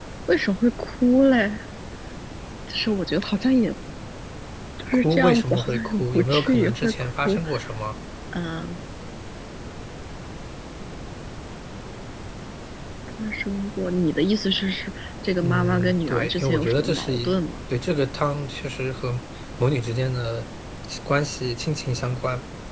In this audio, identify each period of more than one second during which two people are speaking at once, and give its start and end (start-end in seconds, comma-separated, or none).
5.0-7.4, 15.4-17.4